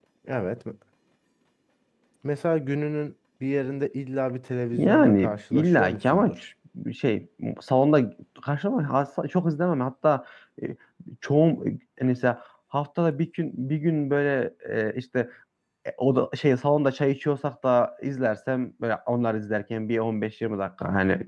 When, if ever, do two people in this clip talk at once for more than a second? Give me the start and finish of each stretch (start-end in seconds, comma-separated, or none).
4.7-6.4